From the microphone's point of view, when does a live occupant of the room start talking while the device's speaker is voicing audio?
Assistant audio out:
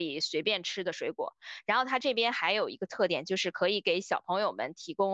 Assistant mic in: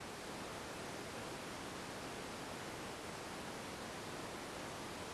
none

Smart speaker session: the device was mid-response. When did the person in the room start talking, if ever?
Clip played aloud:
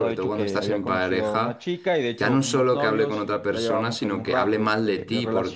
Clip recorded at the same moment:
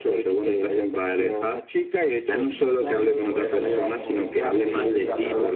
3.1 s

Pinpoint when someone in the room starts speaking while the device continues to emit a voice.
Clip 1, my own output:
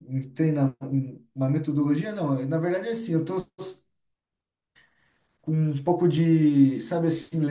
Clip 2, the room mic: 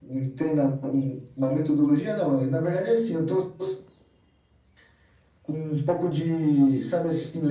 none

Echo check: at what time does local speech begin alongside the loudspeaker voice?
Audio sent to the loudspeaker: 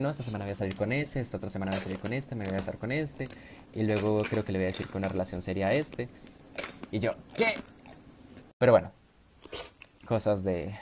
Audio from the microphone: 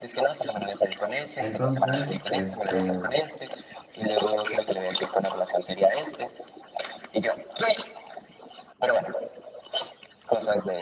1.4 s

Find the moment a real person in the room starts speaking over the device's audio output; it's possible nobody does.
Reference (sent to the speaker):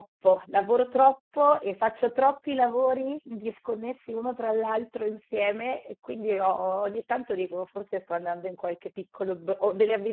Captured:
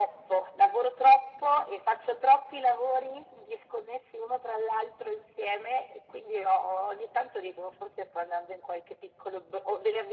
none

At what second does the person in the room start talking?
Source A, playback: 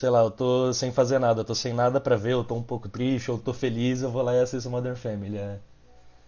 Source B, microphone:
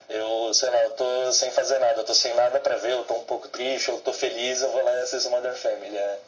none

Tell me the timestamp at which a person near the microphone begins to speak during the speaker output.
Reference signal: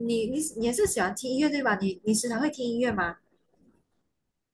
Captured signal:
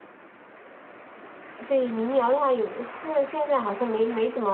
1.7 s

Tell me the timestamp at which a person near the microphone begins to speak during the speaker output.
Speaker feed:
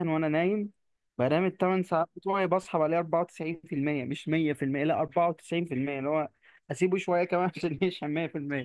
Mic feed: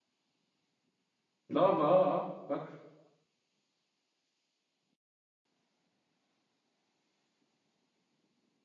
1.5 s

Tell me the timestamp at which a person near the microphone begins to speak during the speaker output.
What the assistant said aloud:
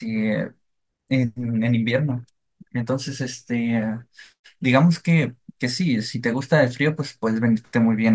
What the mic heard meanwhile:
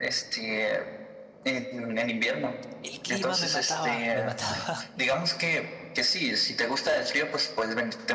2.8 s

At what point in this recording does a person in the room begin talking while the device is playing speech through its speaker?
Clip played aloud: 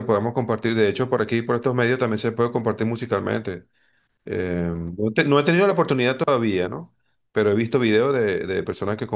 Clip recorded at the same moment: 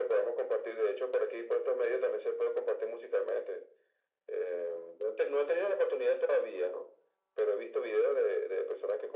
none

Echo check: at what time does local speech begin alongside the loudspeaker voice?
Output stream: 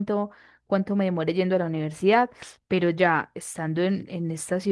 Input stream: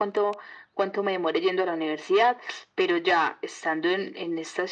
none

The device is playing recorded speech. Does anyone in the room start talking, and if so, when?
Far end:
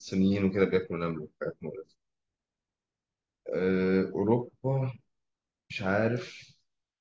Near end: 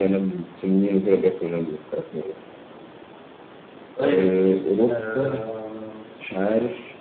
3.9 s

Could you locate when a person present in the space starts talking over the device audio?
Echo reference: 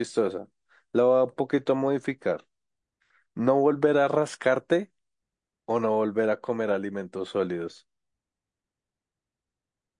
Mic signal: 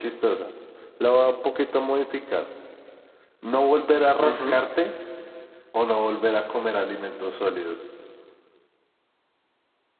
4.2 s

